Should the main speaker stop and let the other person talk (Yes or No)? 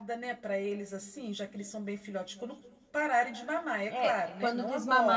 Yes